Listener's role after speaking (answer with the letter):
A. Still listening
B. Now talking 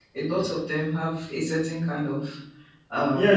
B